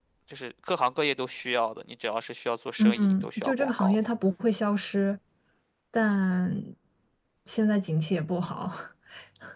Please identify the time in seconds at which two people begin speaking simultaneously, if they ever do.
2.8 s

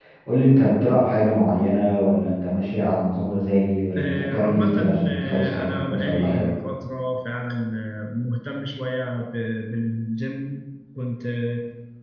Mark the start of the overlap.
4.0 s

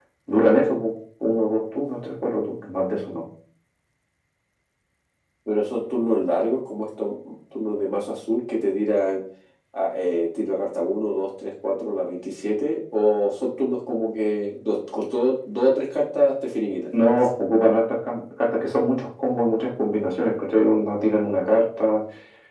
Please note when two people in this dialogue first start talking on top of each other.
none

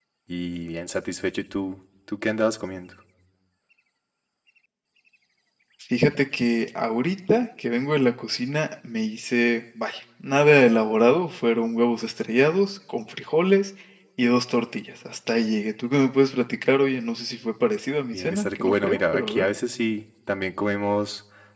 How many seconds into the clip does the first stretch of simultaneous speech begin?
18.1 s

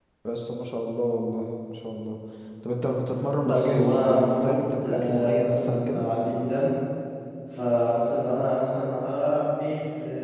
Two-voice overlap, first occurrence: 3.4 s

